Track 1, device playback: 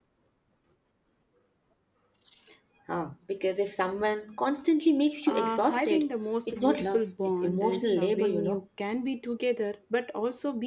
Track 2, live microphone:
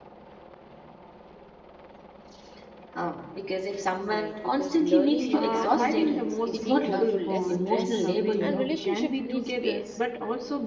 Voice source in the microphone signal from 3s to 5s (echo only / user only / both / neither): both